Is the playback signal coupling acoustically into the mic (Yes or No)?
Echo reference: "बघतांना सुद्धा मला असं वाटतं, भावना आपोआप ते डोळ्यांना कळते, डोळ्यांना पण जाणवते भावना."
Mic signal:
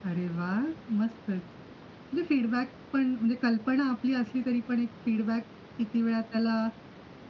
No